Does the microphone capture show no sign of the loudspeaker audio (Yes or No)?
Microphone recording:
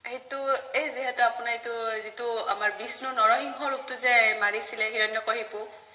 No